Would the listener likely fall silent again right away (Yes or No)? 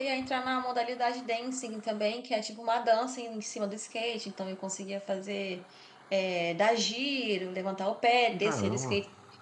Yes